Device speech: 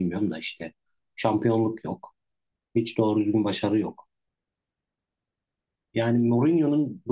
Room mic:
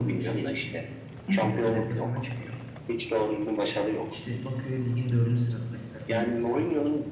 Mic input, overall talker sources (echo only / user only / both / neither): both